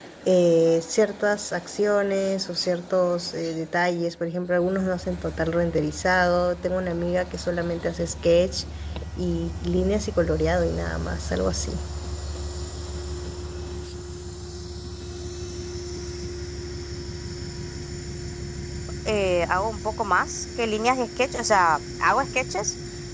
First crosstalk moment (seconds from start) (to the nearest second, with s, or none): none